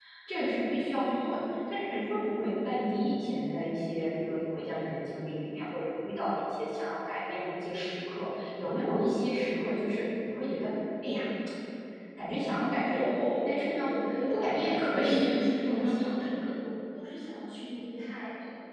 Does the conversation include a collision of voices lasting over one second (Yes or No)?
Yes